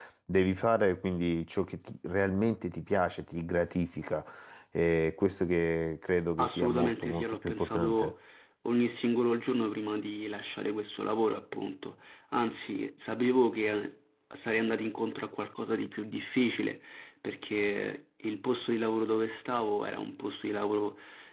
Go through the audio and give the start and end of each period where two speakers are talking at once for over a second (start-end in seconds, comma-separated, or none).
6.4-8.1